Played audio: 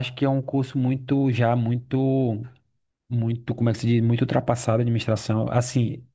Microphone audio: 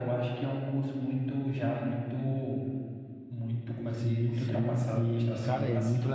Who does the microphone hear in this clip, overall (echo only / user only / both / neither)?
both